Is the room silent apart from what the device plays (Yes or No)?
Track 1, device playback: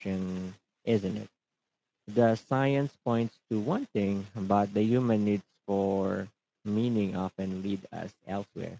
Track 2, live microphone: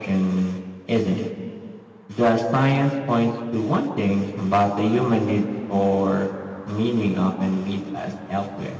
Yes